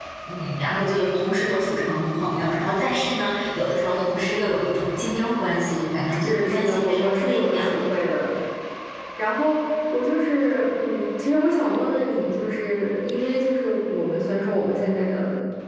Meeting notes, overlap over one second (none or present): present